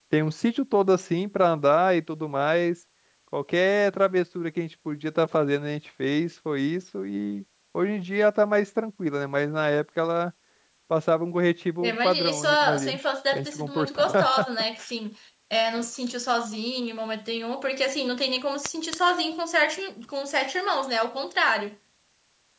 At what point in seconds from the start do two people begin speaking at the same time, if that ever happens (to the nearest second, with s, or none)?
12 s